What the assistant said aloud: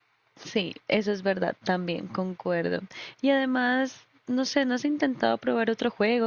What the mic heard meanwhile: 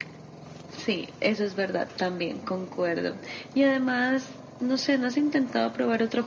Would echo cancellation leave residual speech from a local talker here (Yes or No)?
No